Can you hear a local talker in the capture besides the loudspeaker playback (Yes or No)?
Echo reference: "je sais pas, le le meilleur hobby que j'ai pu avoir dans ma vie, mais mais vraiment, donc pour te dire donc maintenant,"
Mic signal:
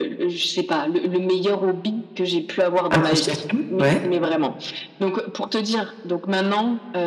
Yes